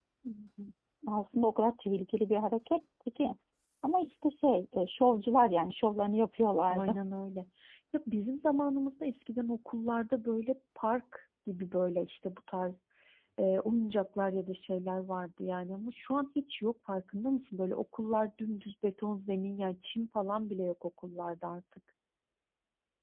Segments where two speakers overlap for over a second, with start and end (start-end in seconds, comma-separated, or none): none